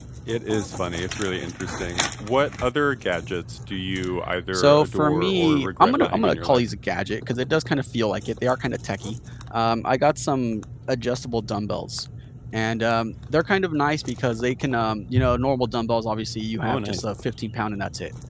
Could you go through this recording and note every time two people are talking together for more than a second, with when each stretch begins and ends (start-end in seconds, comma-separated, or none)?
4.5-6.6